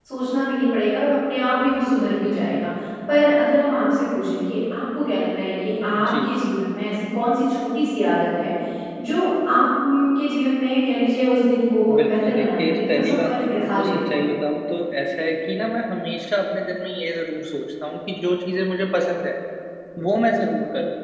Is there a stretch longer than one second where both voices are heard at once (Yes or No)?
Yes